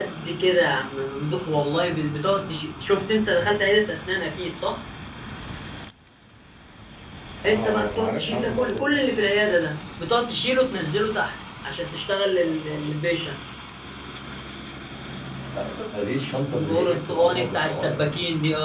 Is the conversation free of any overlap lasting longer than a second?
No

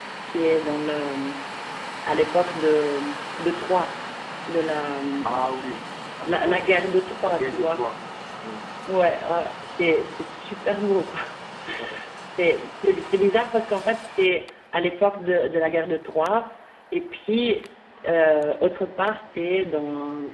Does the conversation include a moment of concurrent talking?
Yes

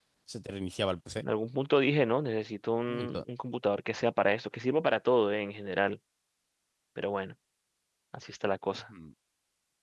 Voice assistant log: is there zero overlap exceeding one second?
Yes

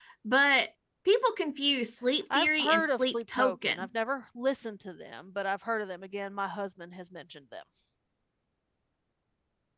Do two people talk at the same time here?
Yes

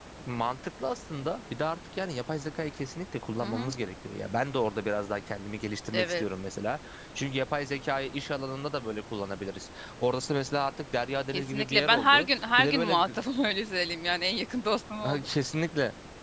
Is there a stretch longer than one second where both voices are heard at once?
Yes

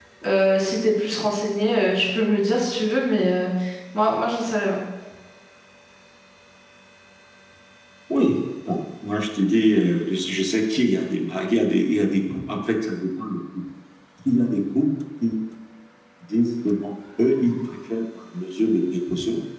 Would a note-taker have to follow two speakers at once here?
No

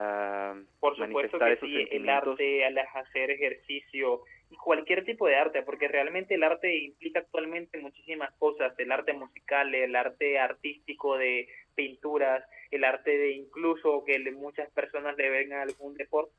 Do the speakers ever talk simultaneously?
Yes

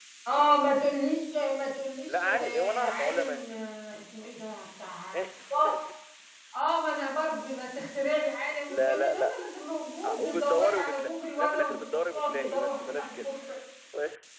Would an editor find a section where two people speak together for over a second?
Yes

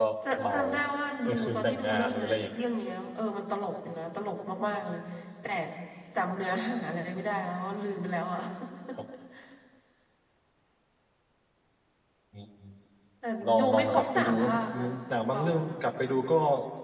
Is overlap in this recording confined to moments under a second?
No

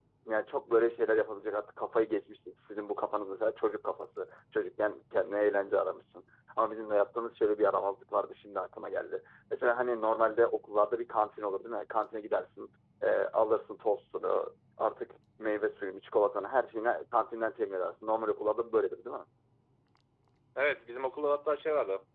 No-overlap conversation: Yes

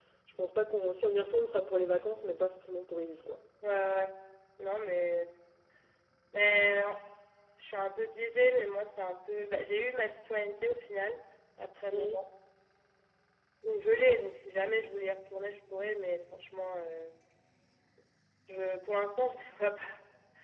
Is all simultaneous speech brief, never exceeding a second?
Yes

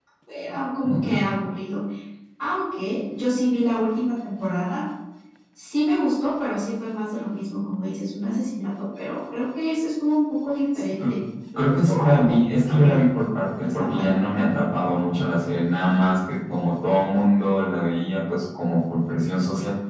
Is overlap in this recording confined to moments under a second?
No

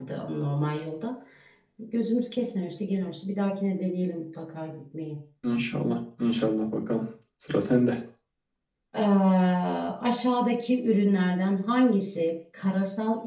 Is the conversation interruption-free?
Yes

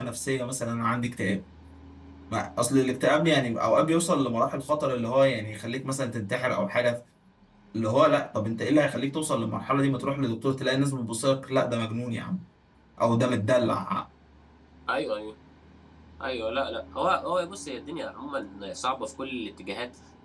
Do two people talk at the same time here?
No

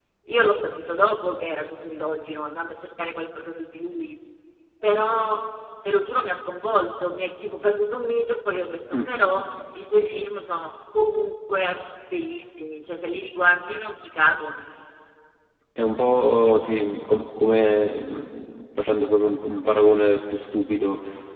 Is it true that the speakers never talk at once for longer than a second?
Yes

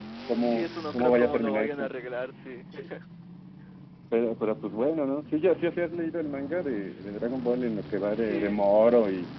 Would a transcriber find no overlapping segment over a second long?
No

